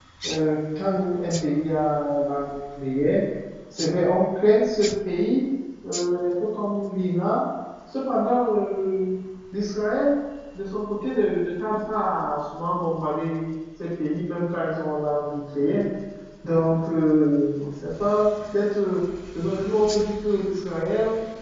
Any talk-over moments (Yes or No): No